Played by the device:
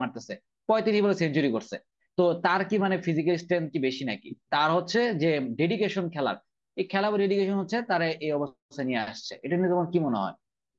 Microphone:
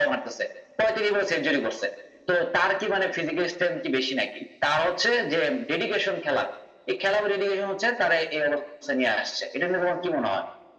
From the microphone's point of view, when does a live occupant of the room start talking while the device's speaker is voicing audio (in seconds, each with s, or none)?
none